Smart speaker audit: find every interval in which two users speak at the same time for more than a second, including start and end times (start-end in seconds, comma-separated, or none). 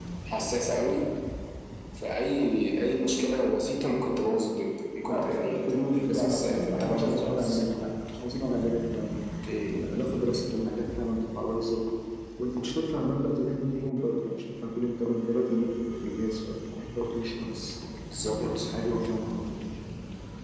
5.0-7.6